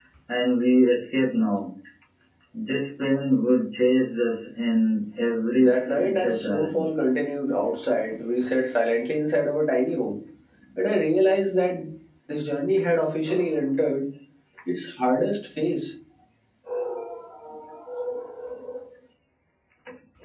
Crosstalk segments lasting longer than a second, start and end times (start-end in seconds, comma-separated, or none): 5.6-6.9